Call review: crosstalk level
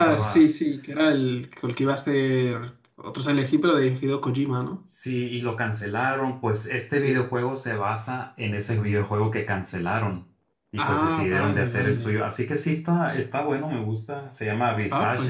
present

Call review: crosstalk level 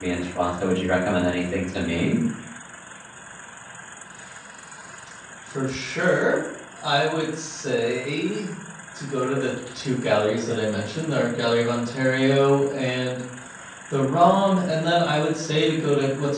none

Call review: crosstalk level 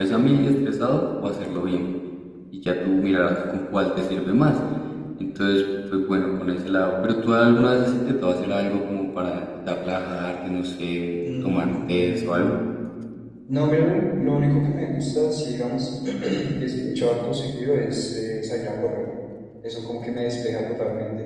present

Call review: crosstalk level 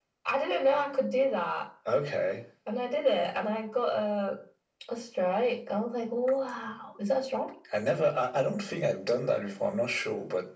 none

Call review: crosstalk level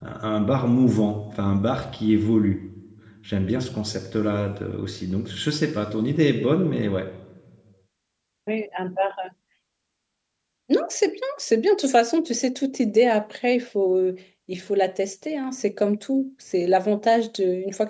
none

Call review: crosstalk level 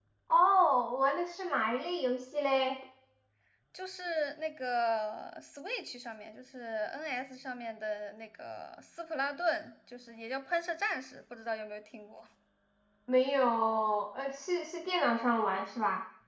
none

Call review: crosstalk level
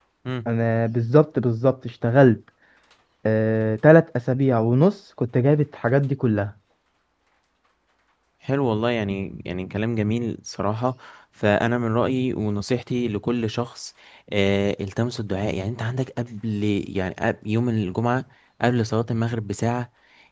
none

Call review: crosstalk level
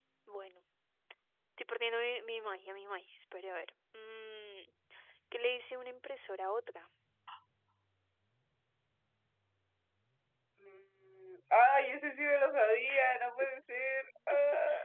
none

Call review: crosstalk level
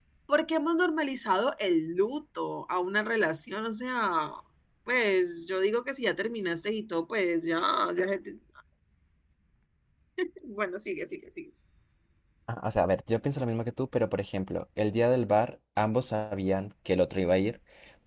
none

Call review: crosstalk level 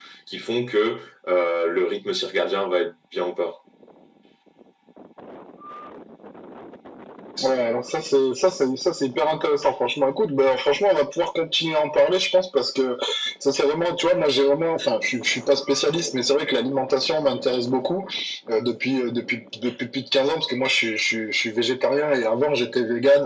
none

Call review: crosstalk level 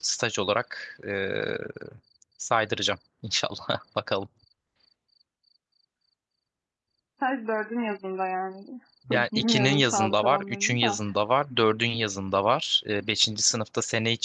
present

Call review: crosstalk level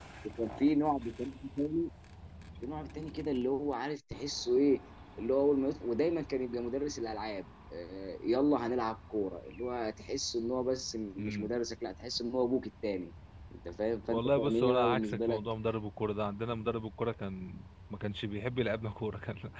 present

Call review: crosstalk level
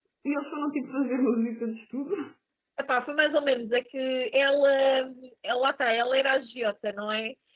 none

